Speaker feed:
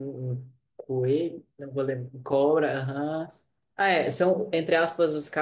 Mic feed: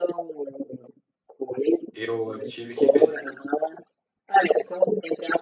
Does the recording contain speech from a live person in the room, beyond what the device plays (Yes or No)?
Yes